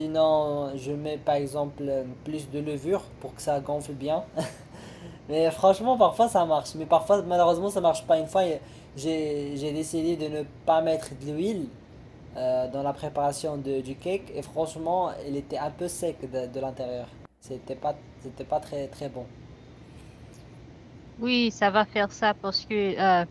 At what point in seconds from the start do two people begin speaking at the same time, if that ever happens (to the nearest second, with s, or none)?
none